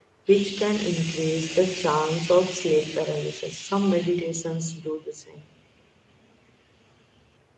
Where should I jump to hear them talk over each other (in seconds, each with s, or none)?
none